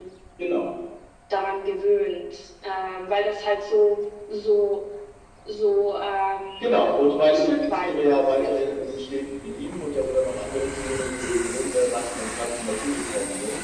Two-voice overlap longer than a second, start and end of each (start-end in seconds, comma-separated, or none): 7.3-9.0